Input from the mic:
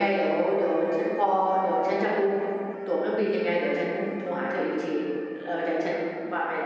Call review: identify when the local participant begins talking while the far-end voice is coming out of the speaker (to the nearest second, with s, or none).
none